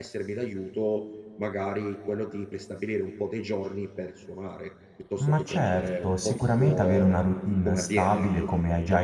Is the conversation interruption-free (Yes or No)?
No